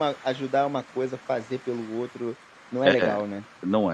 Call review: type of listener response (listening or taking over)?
taking over